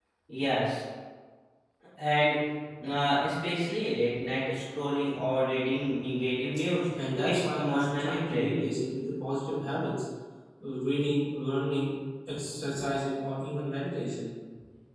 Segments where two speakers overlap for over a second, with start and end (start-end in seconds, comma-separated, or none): 7.0-8.7